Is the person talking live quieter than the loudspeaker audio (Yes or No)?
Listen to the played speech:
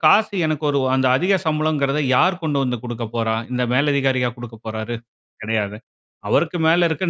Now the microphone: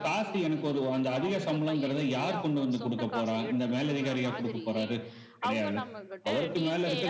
Yes